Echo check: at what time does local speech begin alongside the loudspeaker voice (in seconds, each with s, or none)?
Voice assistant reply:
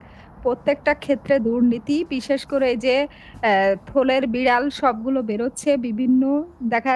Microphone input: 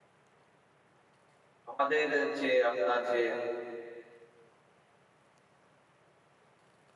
1.7 s